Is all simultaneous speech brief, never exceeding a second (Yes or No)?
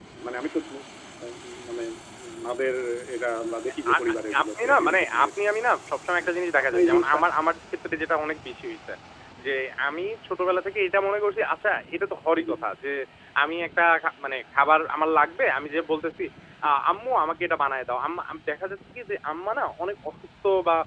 No